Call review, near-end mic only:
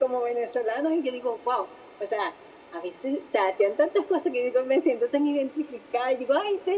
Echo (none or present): present